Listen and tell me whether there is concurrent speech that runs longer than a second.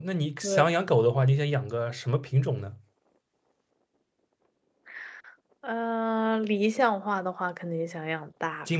No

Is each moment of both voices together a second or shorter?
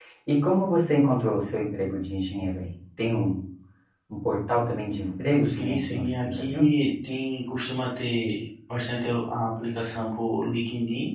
No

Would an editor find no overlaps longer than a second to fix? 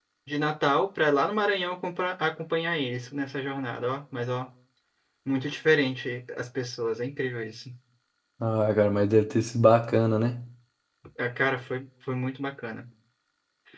Yes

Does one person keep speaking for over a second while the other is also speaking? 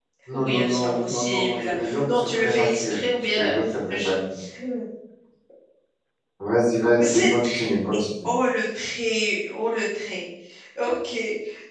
Yes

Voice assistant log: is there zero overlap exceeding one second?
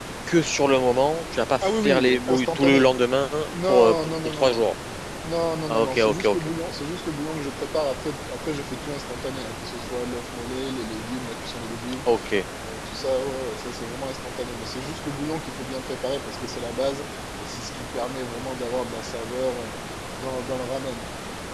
No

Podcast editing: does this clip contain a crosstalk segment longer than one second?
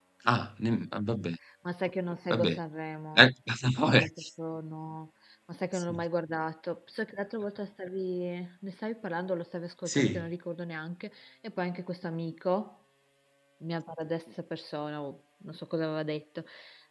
No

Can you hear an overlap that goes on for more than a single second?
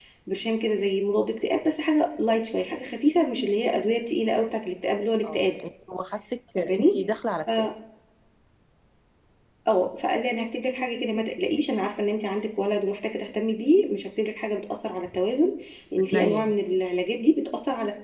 No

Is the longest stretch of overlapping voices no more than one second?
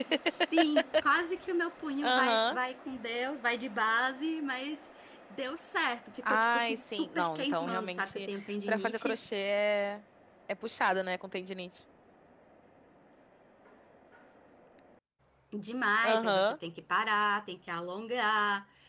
No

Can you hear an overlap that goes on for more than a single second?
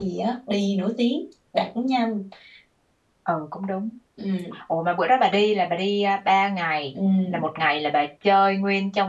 No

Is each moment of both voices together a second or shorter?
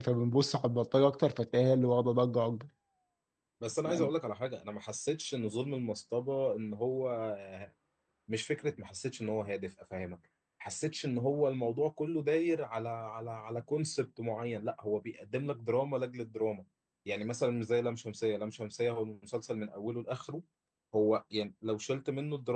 Yes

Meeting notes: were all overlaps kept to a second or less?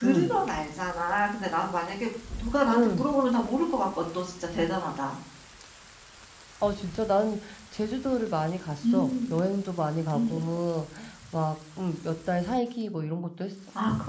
Yes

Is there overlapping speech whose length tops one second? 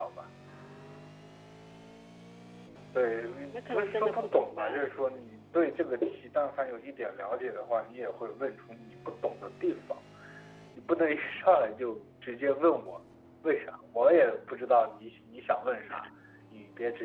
Yes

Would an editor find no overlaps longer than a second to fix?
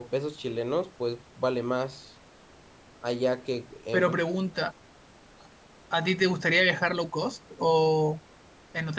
Yes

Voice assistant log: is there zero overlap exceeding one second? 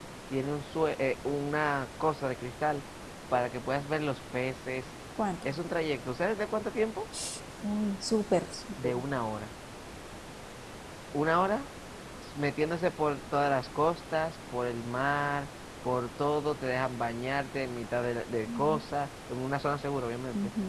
Yes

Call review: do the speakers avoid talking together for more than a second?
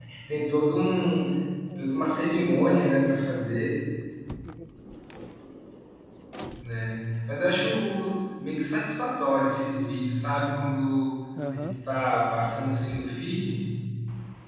No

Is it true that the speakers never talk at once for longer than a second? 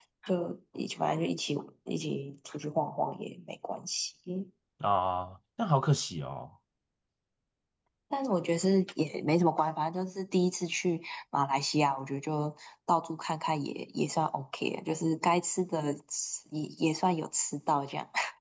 Yes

